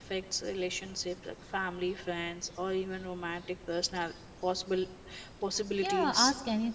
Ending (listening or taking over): taking over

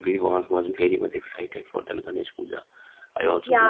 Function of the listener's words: taking over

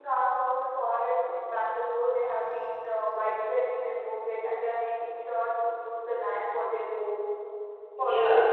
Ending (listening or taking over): taking over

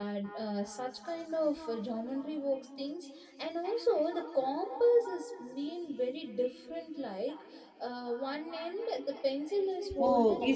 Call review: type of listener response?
taking over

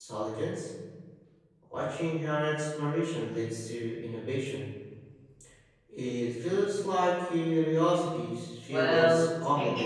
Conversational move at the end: taking over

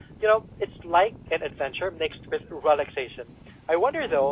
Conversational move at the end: listening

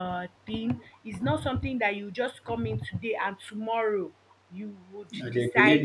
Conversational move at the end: taking over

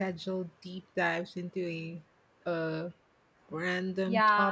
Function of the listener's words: taking over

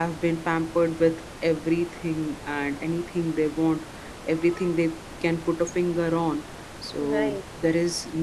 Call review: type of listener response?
listening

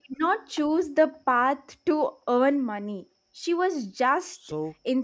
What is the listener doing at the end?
listening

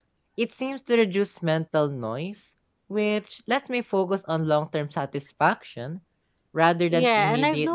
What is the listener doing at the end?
taking over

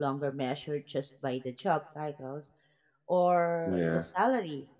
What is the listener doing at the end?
listening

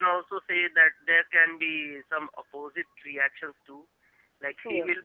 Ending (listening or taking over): listening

